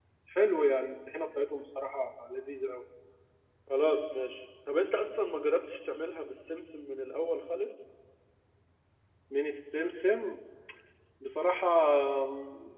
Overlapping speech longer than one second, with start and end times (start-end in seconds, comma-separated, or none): none